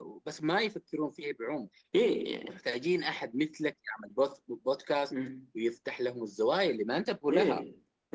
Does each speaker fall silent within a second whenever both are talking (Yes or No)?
Yes